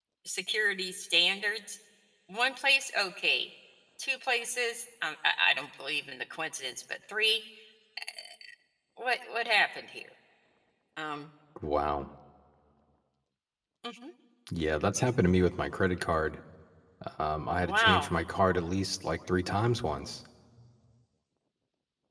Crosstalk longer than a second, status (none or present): none